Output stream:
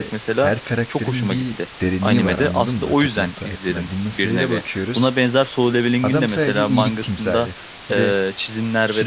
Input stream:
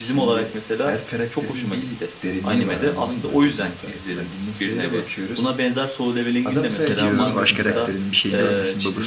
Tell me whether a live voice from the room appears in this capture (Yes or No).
Yes